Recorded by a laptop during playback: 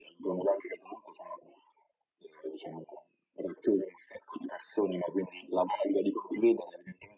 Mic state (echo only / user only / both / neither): echo only